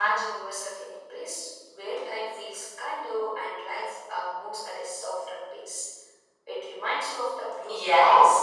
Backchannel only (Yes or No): No